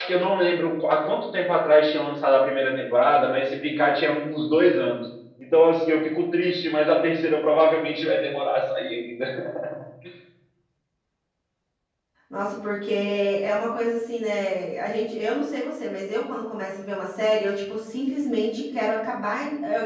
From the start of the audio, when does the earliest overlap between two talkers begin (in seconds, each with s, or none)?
none